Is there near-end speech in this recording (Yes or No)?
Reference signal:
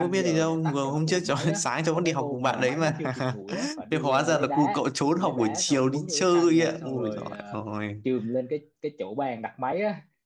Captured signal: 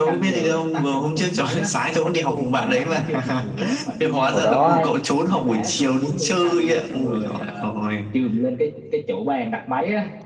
Yes